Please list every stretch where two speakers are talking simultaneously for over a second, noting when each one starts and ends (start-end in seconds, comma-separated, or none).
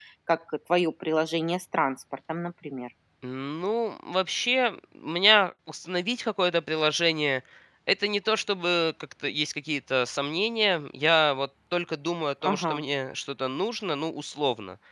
none